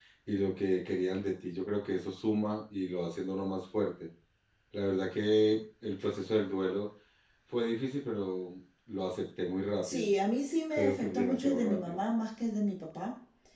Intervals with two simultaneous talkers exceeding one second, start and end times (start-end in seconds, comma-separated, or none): 10.7-12.0